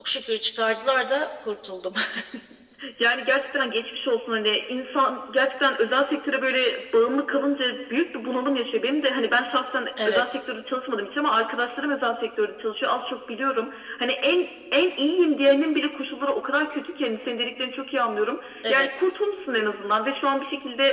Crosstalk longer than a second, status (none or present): none